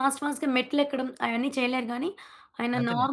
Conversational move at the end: listening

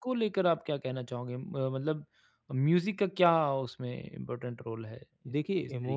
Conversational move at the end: taking over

